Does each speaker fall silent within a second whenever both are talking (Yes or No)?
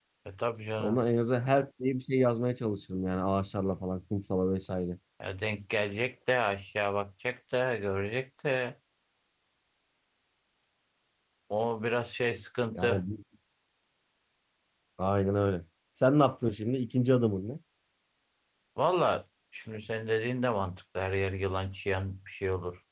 Yes